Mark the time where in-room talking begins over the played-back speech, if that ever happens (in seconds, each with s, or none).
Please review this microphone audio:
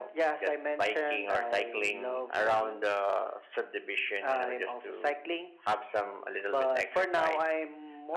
none